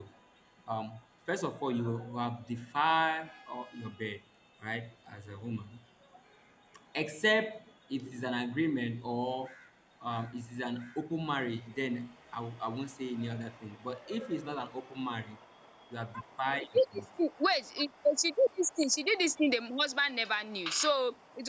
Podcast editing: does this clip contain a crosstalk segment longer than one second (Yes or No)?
No